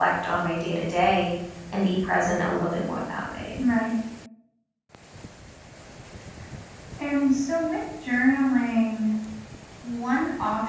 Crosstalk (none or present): none